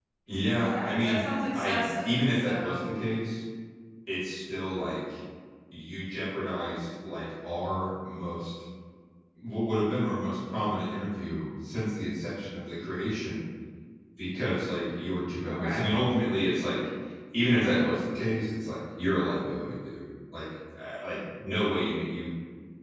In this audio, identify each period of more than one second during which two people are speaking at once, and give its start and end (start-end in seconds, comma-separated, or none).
0.7-3.0